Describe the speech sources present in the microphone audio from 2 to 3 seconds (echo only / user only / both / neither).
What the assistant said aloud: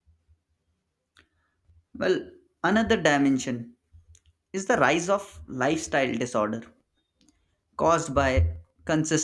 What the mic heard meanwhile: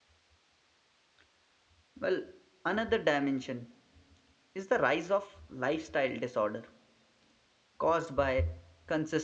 echo only